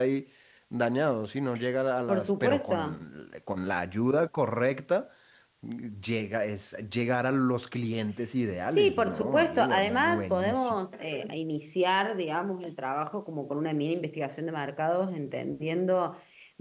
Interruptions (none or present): present